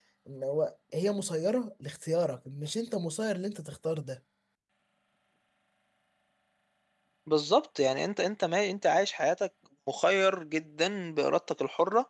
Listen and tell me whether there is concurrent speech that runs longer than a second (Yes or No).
No